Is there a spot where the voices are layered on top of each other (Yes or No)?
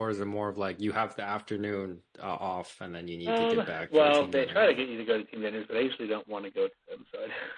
Yes